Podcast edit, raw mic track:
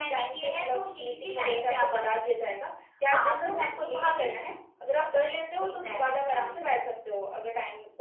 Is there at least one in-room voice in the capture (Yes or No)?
No